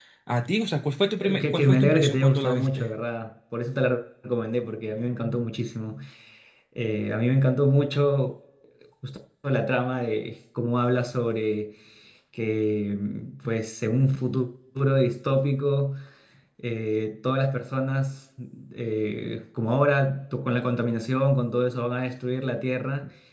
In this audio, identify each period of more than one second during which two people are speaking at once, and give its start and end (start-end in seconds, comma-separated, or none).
1.2-2.9